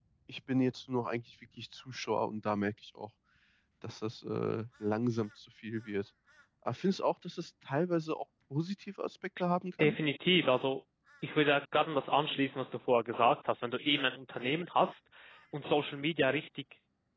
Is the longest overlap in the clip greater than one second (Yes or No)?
No